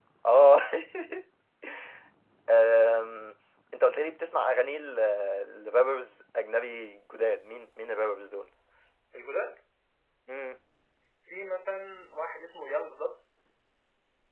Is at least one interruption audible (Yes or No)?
No